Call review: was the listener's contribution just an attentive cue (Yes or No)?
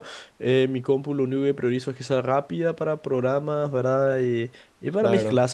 Yes